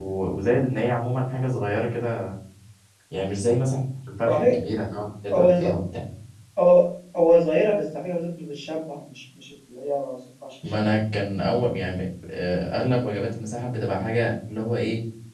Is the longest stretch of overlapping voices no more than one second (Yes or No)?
Yes